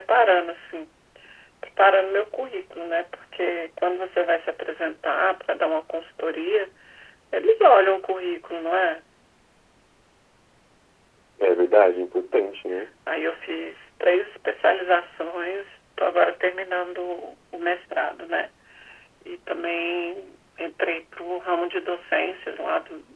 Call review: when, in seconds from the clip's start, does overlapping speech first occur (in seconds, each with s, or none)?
none